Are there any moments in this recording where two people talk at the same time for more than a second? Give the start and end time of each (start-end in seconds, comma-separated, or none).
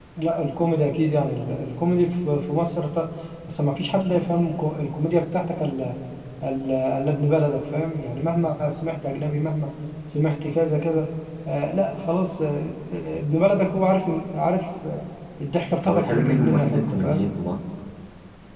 15.8-17.2